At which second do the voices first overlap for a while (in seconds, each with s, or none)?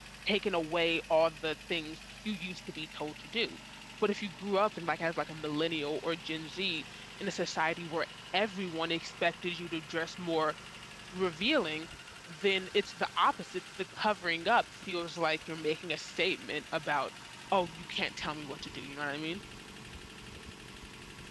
none